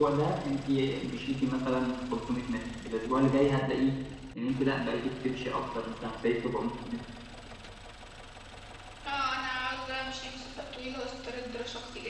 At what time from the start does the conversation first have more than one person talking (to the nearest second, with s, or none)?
none